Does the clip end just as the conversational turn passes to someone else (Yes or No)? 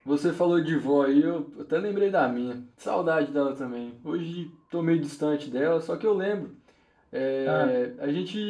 No